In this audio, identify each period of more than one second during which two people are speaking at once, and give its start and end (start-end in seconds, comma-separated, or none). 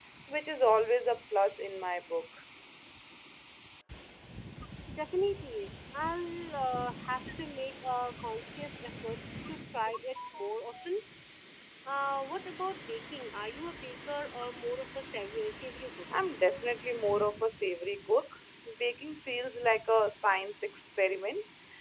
none